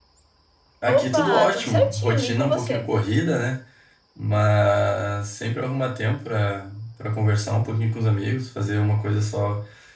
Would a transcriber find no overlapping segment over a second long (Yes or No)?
No